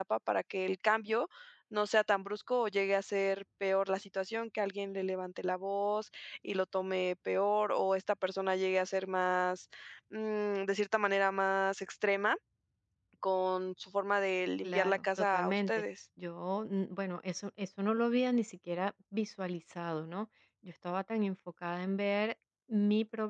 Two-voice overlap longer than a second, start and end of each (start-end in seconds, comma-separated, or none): 14.6-15.8